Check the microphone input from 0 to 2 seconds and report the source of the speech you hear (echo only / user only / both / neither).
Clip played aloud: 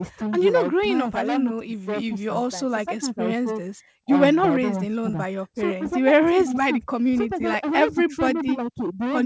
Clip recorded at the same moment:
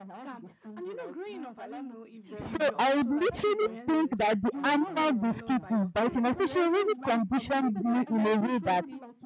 echo only